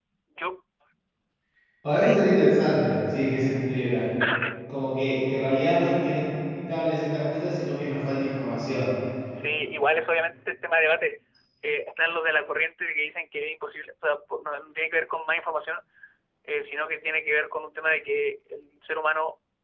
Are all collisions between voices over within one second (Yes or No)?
Yes